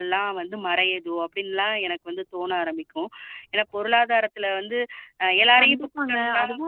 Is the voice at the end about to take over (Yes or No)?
Yes